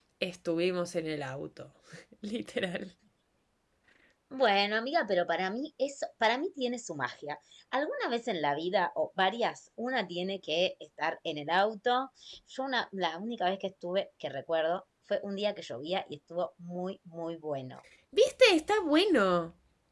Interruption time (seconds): none

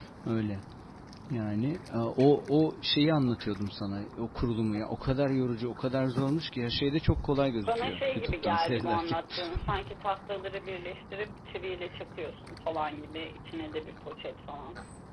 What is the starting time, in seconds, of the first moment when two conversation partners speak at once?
7.7 s

